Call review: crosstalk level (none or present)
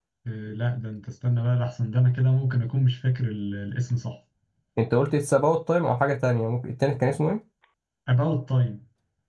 none